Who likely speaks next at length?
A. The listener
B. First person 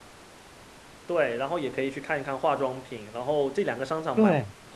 B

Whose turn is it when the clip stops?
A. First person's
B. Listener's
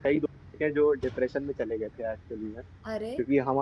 A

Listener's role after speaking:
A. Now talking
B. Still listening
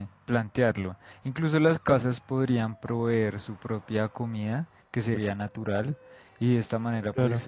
B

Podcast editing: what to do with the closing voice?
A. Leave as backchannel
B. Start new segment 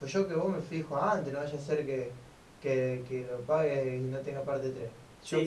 A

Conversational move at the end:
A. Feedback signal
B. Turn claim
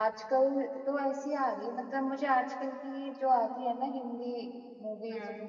A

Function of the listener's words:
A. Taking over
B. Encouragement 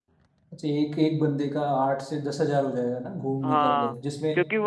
A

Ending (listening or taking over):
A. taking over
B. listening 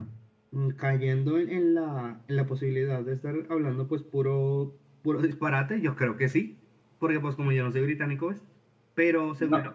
B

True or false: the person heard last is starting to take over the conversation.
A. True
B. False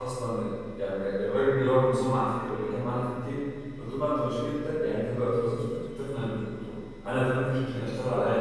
B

